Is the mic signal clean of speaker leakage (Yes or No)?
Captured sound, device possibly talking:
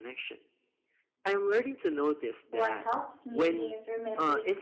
No